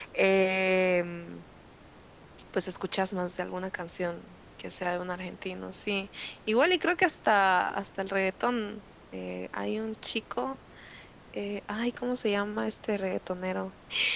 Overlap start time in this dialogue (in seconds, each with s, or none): none